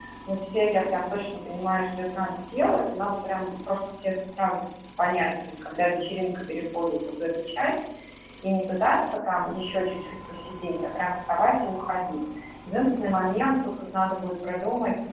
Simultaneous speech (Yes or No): No